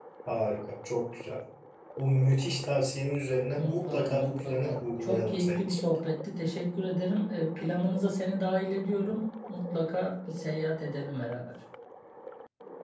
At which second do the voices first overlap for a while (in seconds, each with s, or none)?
3.6 s